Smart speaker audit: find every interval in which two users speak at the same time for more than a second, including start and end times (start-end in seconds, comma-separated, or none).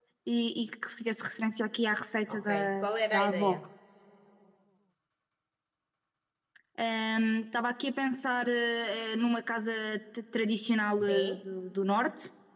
2.3-3.6